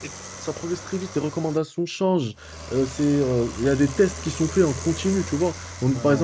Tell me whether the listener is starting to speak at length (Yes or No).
No